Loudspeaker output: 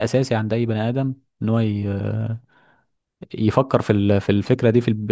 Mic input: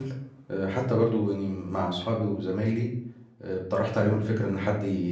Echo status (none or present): none